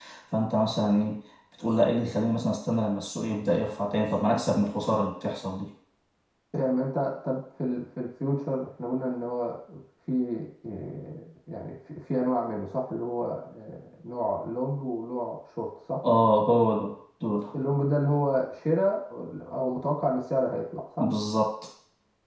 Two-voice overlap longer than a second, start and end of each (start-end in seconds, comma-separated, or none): none